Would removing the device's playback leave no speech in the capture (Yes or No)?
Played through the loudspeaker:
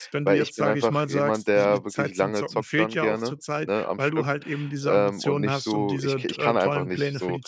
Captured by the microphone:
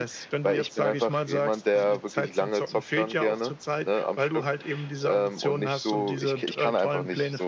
Yes